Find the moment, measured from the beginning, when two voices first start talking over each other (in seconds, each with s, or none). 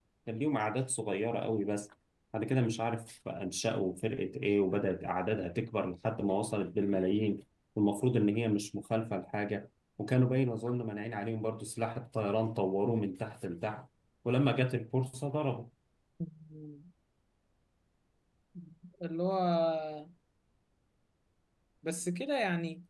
none